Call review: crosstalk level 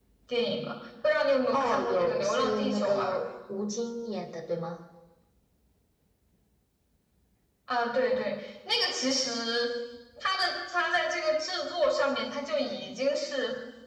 present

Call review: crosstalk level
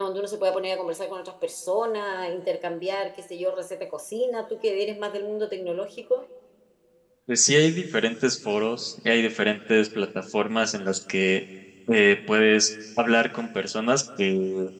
none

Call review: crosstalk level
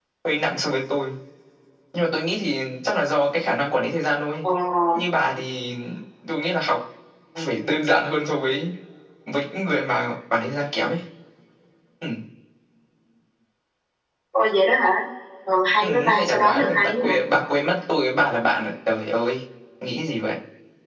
present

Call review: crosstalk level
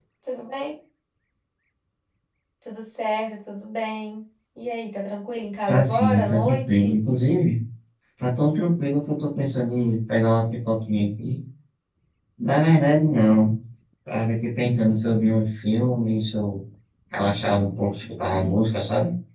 present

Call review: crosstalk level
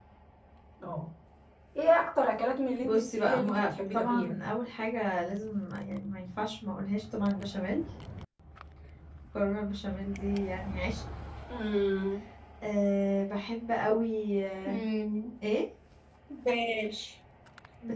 present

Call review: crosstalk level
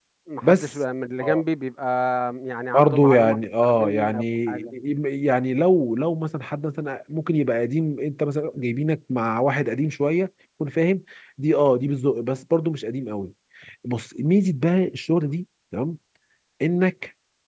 present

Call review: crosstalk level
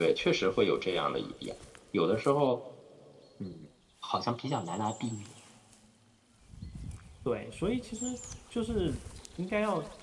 none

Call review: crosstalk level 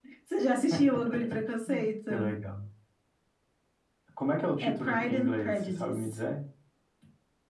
present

